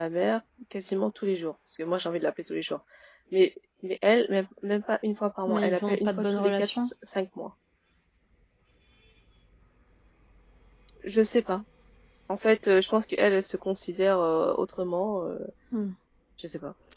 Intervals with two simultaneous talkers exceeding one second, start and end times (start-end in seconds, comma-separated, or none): 5.5-6.9